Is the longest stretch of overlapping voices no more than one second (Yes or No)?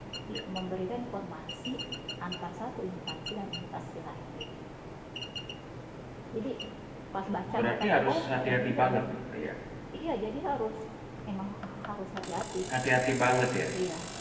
No